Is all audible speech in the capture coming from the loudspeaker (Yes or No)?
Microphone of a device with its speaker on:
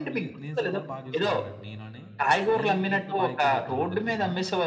No